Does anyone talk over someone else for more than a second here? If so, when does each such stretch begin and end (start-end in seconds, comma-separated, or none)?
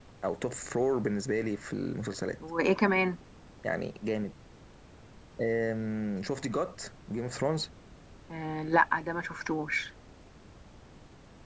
none